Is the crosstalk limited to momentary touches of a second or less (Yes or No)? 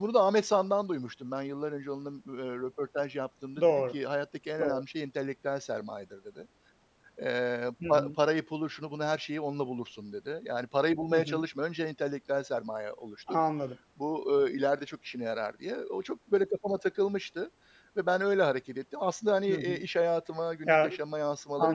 Yes